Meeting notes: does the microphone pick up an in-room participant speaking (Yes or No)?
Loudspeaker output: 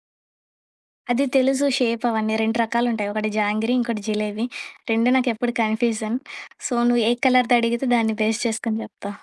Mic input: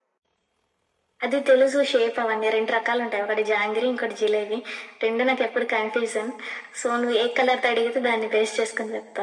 No